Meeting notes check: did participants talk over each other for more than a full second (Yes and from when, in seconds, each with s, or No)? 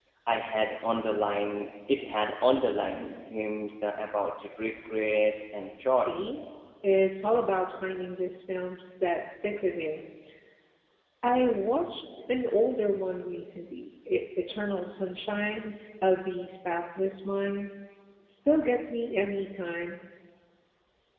No